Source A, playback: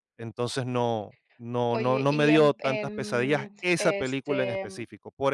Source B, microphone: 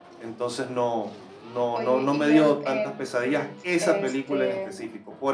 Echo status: present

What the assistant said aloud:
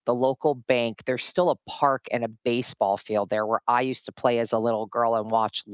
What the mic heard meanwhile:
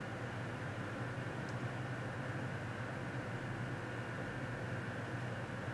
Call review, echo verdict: none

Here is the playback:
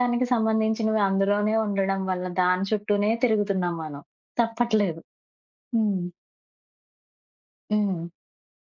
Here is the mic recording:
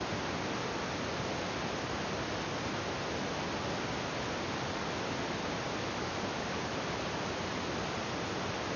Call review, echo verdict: none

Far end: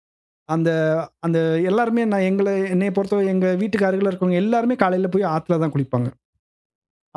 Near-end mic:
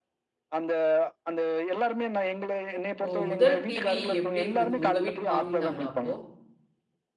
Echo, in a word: present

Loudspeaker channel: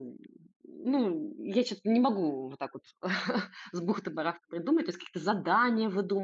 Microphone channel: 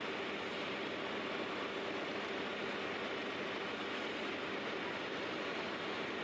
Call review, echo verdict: none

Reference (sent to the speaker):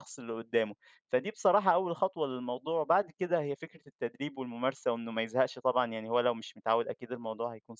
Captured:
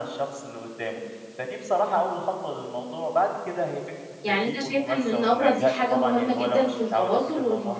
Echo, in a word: present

